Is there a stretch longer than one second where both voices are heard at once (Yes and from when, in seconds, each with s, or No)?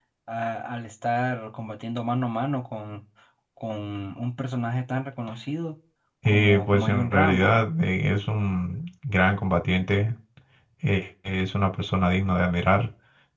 Yes, from 6.2 s